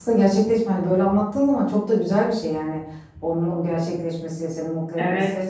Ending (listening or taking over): taking over